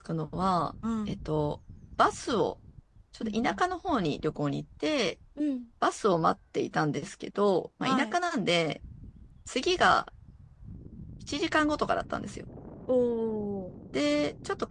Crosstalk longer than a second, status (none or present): none